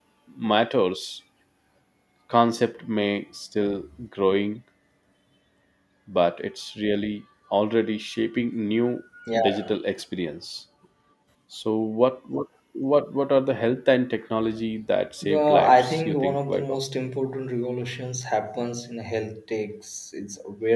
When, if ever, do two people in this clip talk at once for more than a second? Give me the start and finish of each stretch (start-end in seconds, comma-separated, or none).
15.2-16.8